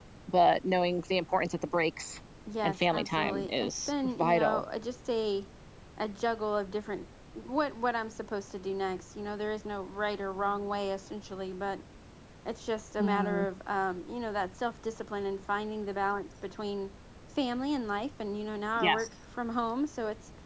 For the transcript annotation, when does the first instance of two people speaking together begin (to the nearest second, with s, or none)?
3 s